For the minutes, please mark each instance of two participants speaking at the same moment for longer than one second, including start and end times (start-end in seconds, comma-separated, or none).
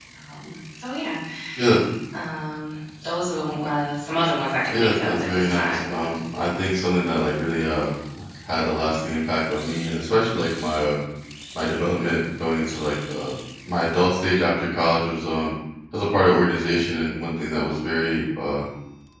4.7-6.1